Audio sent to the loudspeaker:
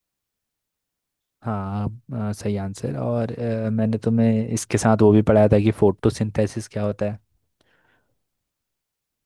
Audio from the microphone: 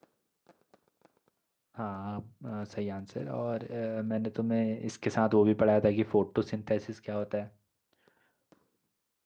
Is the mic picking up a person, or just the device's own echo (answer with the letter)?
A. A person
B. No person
B